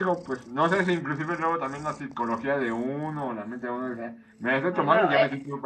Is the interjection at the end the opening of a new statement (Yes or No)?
No